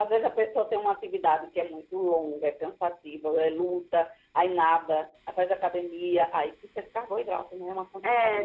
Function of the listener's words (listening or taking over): taking over